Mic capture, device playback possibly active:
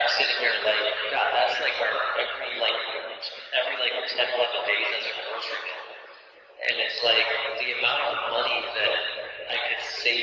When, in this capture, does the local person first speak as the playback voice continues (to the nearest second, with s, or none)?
none